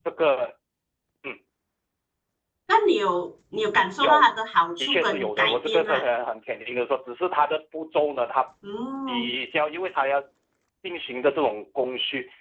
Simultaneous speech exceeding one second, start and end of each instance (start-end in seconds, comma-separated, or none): 4.8-6.0